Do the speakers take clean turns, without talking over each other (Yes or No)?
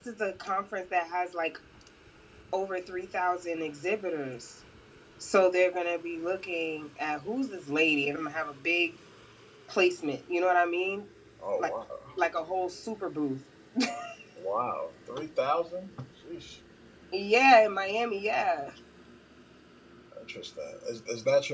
Yes